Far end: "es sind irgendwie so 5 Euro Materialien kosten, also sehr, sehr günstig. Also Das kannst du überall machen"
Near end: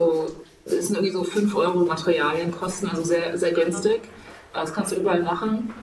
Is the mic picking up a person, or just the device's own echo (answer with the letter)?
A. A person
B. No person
A